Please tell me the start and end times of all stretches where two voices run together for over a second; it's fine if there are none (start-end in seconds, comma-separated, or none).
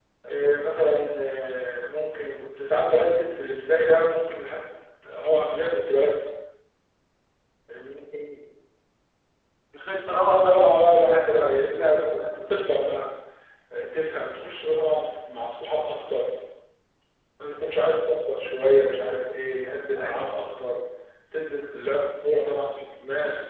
10.1-11.6